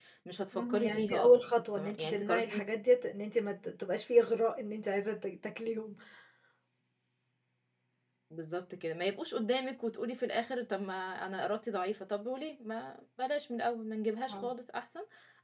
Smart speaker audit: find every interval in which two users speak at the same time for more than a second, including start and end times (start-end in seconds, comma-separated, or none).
0.5-2.6